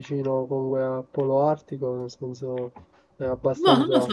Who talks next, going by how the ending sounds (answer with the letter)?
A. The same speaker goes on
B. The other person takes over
B